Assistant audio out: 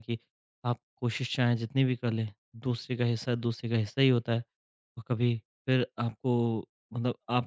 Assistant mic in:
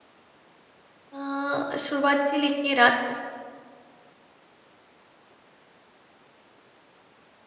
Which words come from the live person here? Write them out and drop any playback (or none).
अ, शुरुआत से लेके रात तक